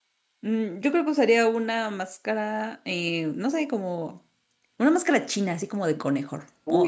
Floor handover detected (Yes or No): Yes